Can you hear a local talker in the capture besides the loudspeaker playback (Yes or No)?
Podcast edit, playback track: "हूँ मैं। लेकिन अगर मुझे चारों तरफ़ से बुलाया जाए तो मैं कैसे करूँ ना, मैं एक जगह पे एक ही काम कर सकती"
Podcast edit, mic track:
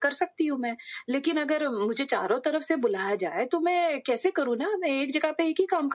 No